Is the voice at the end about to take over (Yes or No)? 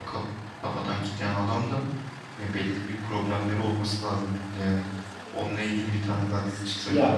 Yes